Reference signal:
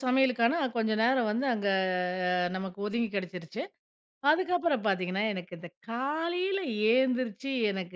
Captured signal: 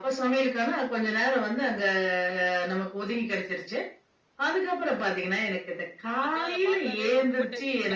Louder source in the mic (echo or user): echo